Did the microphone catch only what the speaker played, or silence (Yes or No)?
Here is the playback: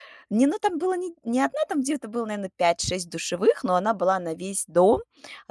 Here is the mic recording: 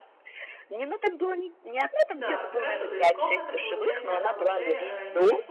No